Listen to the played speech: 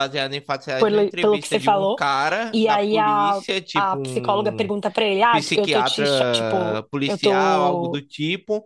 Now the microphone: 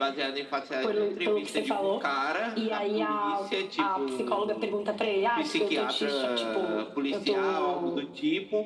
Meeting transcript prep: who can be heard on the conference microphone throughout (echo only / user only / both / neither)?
echo only